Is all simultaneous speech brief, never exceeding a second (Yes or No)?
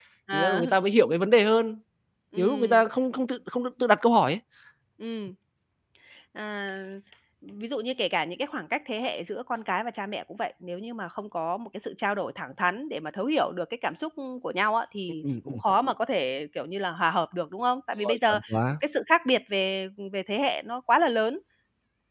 Yes